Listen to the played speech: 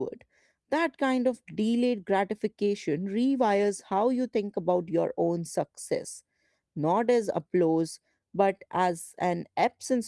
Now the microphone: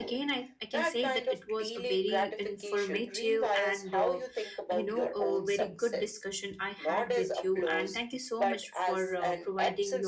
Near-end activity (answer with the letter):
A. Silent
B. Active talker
B